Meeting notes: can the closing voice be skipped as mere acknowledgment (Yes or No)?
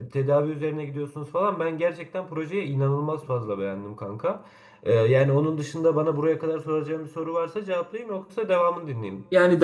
No